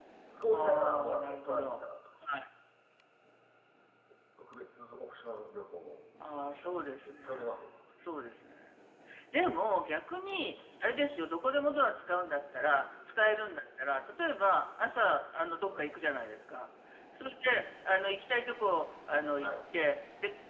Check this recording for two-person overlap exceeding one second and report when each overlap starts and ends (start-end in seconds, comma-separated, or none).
0.5-1.9, 6.4-7.7